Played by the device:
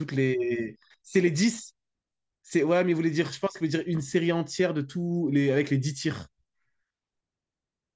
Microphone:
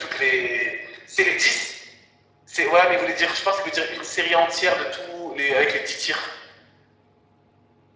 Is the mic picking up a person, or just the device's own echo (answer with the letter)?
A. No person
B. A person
A